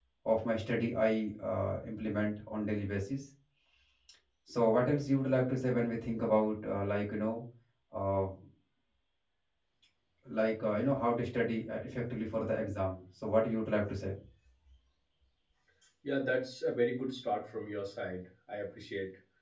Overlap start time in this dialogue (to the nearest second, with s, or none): none